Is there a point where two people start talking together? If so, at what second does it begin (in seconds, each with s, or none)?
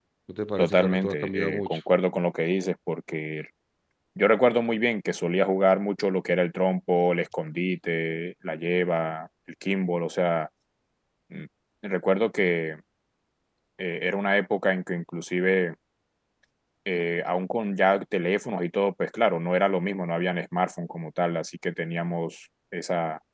0.6 s